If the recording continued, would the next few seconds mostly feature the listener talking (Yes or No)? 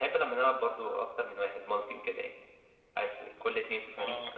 Yes